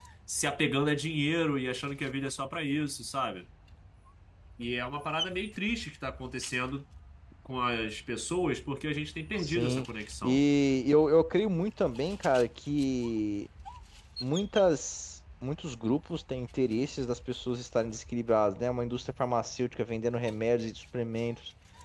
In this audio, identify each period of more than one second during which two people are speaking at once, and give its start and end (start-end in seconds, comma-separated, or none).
none